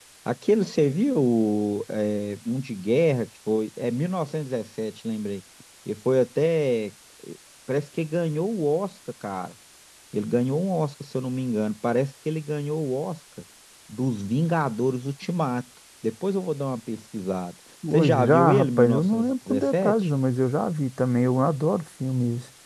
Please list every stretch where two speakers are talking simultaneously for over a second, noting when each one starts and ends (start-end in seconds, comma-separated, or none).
17.9-19.9